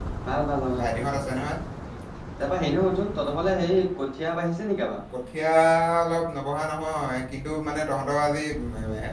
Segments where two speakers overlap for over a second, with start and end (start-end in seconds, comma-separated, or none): none